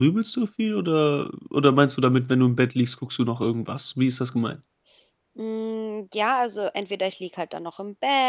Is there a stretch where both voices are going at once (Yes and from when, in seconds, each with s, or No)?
No